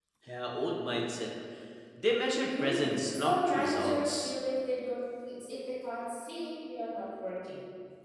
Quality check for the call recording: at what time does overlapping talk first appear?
2.5 s

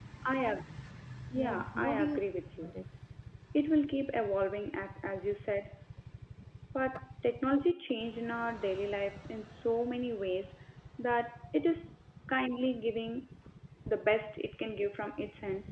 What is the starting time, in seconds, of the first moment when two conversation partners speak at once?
1.4 s

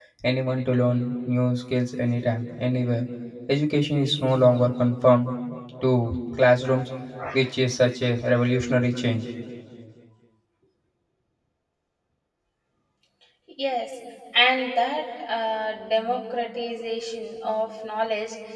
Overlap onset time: none

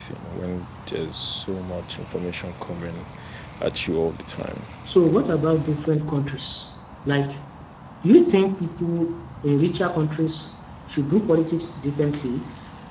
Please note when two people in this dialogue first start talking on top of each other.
none

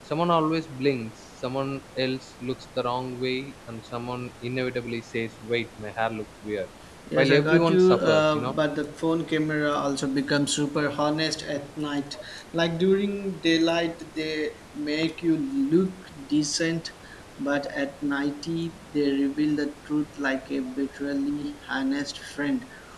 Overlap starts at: 7.2 s

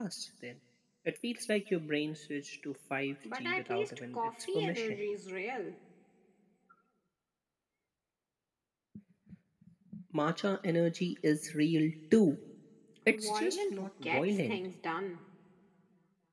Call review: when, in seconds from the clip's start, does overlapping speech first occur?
3.3 s

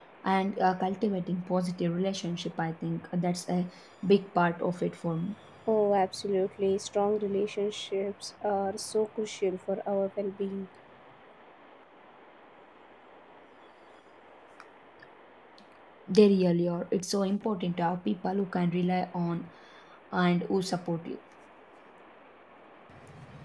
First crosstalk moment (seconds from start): none

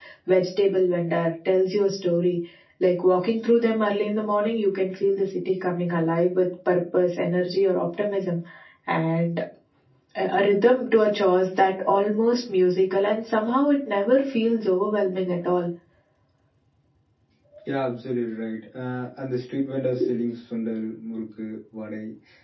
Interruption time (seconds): none

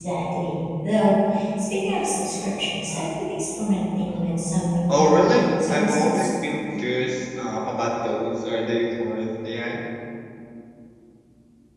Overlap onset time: 4.9 s

